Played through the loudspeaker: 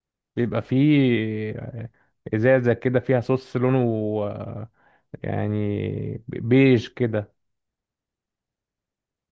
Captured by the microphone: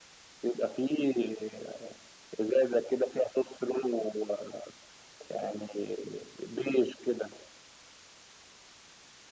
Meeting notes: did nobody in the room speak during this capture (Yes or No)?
Yes